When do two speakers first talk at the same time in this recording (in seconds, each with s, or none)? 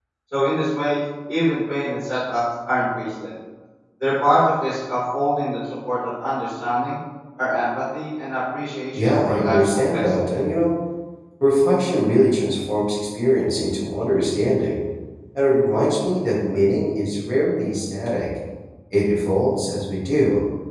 9.0 s